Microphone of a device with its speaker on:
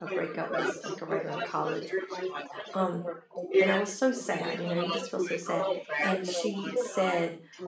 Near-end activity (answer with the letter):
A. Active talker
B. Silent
A